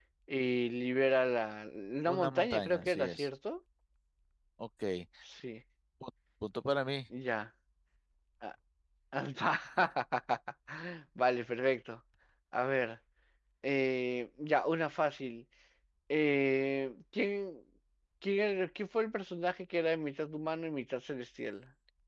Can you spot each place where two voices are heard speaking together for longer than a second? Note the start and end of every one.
2.1-3.3

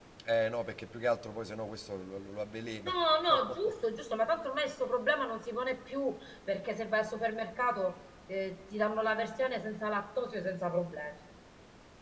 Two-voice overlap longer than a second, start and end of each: none

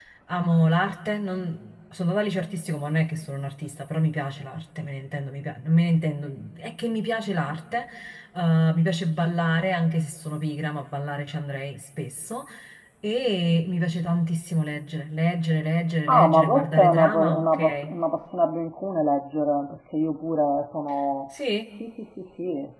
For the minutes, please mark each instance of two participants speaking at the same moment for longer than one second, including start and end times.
16.1-17.9

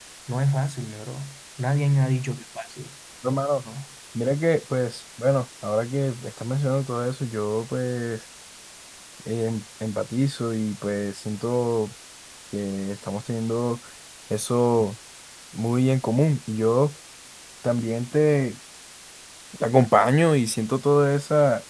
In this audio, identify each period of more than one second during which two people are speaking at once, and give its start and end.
none

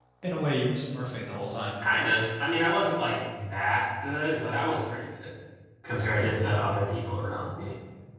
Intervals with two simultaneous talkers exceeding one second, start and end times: none

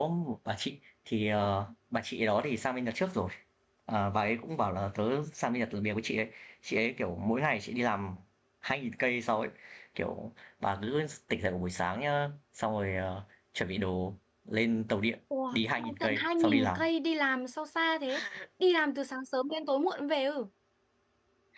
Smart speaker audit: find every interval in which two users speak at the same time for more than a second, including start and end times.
15.5-16.8

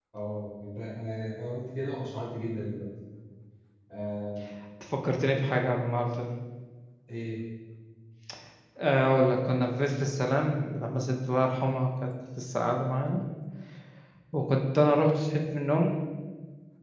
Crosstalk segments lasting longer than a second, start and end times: none

